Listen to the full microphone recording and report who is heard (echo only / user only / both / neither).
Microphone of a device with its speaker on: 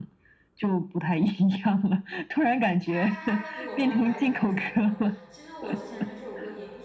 both